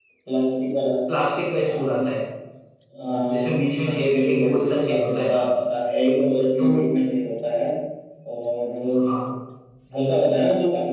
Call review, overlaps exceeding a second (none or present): present